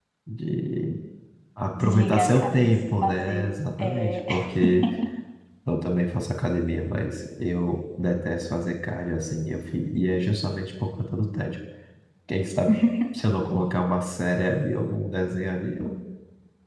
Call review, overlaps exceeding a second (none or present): present